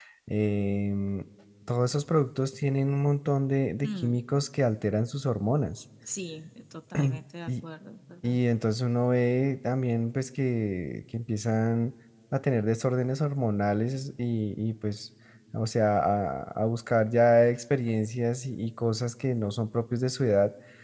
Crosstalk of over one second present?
No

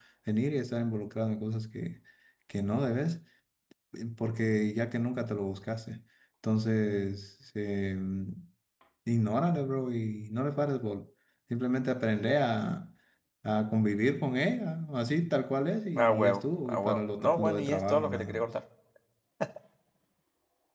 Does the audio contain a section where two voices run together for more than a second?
Yes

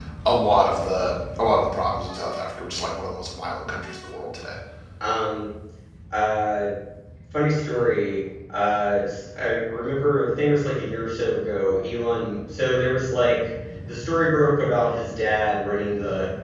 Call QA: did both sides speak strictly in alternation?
Yes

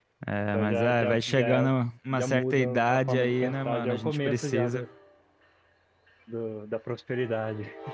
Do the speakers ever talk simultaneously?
Yes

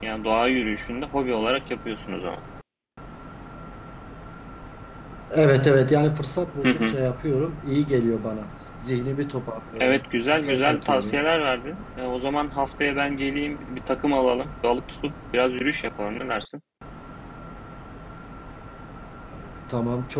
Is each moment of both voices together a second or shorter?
No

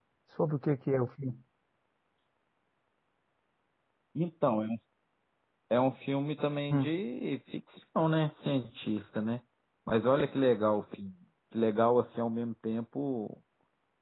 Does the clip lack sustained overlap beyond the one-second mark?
Yes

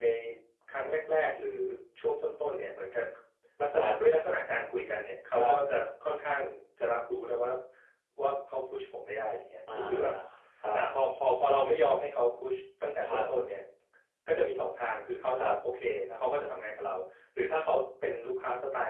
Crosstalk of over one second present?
No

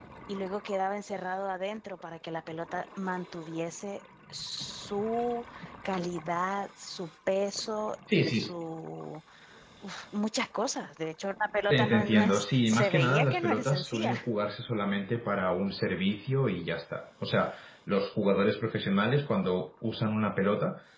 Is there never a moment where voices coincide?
No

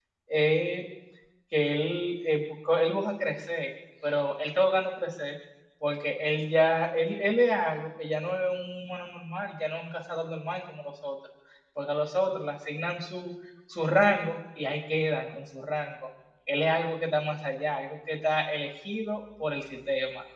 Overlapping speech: No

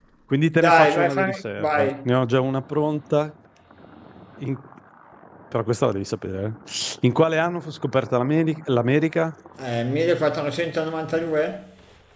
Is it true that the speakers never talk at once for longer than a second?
No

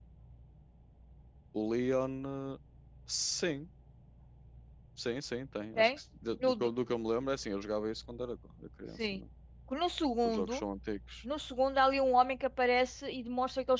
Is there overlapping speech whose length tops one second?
No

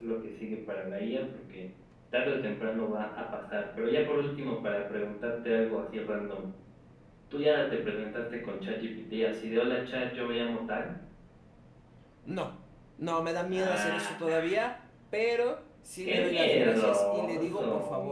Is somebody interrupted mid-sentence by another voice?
Yes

